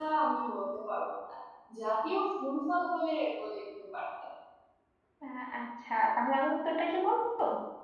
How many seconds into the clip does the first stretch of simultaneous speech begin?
none

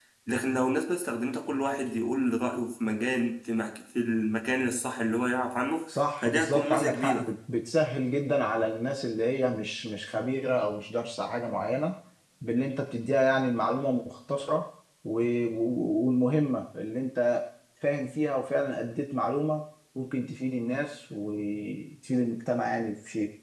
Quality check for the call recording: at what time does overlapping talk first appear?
5.9 s

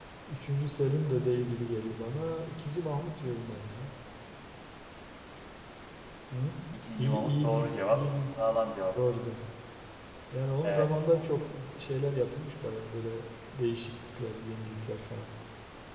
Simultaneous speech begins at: 7.0 s

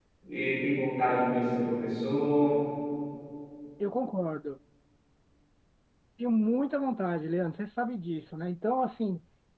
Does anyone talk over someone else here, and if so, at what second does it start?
none

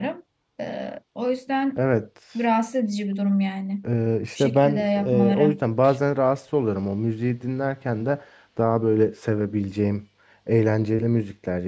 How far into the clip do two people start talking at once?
4.4 s

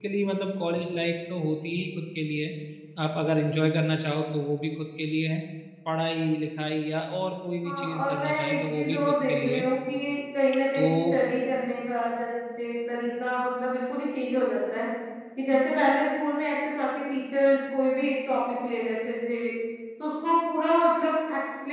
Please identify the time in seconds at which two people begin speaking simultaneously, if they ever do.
7.6 s

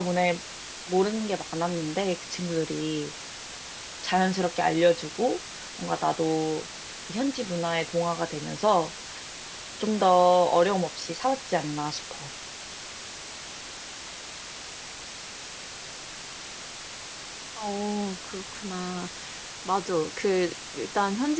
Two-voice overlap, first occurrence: none

